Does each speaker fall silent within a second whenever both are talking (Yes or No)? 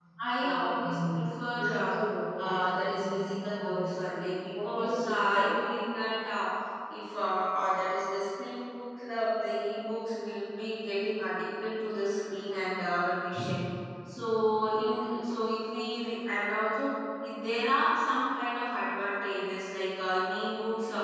No